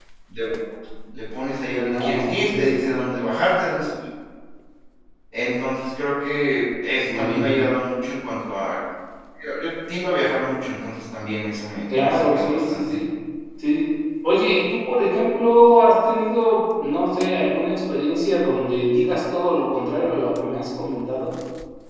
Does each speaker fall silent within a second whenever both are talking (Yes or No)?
No